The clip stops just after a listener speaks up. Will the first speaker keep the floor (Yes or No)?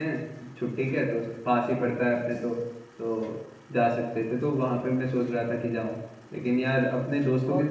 Yes